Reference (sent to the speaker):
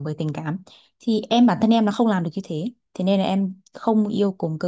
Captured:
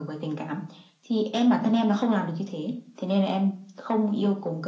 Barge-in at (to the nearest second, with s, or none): none